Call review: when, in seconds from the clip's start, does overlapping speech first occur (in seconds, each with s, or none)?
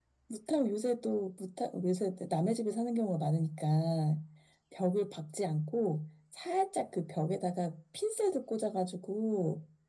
none